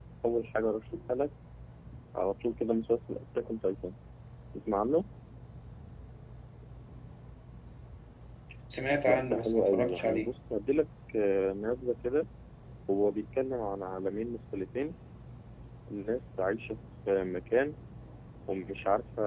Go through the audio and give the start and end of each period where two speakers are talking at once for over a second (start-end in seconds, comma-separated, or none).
9.0-10.3